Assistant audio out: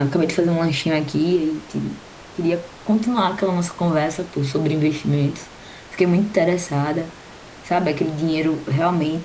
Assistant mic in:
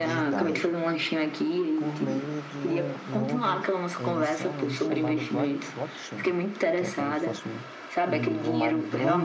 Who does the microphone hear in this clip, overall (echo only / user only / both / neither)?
both